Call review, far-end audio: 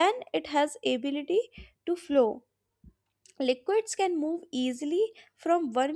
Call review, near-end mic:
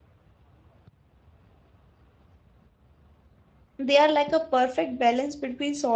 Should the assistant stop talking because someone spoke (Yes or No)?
Yes